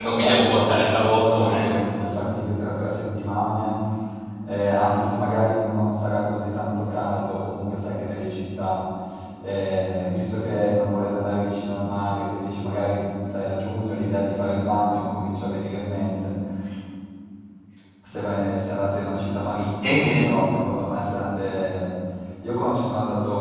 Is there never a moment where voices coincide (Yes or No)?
No